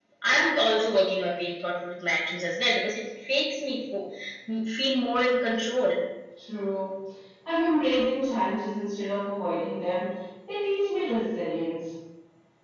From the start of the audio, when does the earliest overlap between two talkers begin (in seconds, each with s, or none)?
none